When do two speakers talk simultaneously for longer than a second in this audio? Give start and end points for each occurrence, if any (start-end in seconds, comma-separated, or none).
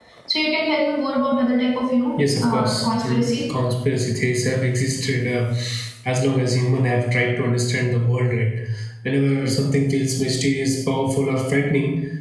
2.2-3.5